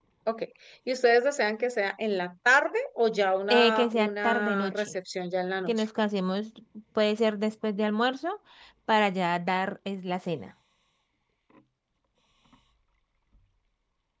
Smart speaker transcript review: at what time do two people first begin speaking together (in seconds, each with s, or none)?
3.5 s